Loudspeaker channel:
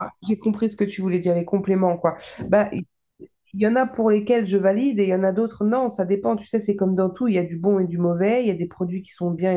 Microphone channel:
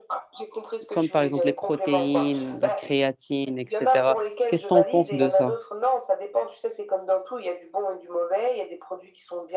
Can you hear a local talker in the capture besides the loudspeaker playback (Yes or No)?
Yes